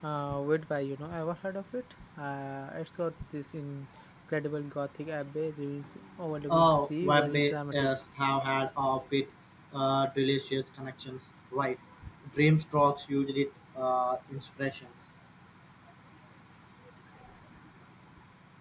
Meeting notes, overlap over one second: present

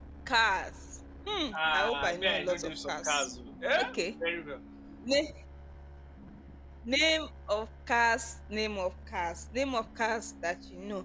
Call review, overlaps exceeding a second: present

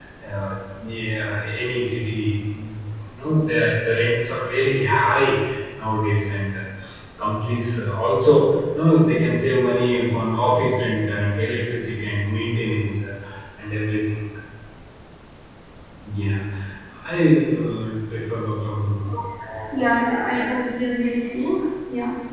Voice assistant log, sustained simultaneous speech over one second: none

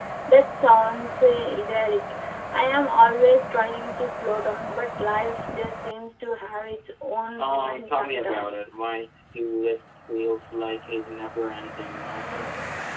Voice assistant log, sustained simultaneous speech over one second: present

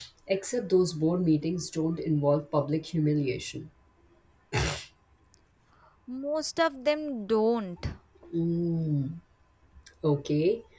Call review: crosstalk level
none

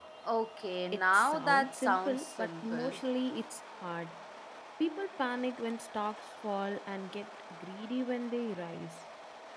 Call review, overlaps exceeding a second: present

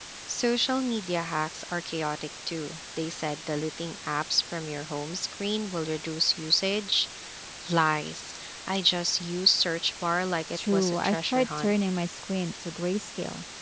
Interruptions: present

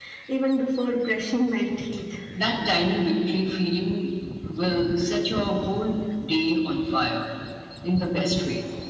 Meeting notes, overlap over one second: none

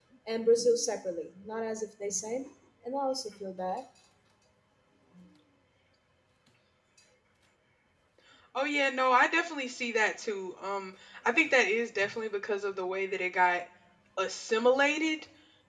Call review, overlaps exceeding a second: none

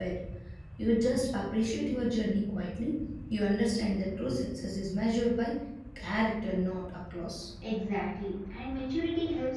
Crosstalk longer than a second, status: none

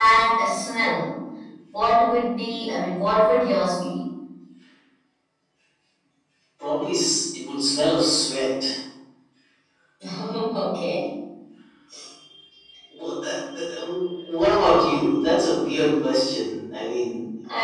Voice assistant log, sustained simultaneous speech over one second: none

